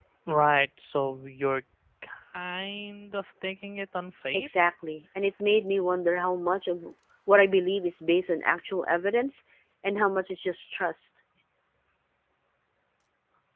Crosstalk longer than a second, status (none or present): none